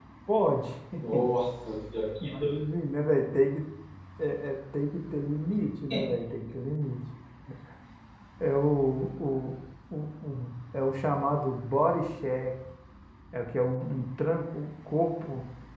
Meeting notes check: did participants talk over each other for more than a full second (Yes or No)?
No